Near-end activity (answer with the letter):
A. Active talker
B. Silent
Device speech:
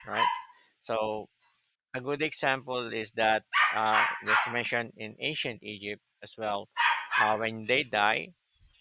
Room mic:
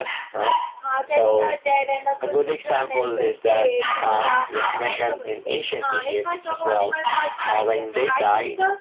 A